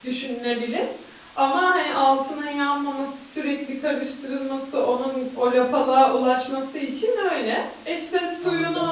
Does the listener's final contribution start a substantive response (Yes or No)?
No